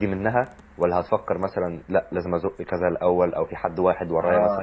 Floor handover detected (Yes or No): Yes